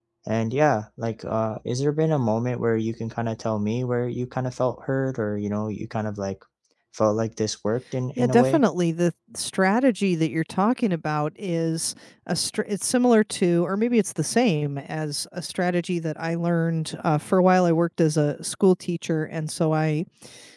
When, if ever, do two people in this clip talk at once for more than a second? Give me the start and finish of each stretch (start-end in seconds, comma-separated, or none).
none